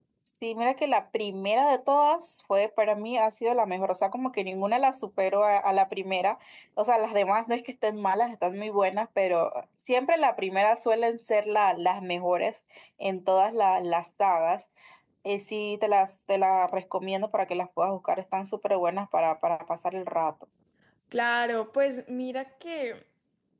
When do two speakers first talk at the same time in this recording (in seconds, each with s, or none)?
none